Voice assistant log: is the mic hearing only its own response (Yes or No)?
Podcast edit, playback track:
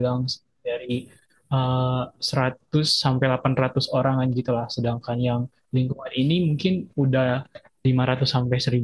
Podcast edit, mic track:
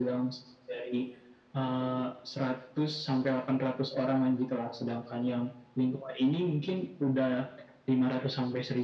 Yes